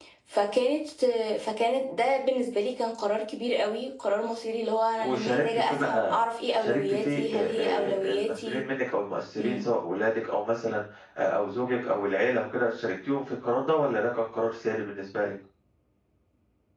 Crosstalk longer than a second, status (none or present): present